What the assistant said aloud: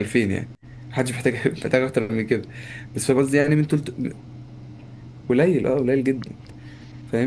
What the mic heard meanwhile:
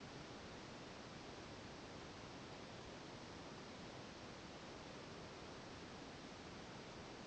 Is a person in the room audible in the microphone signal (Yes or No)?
No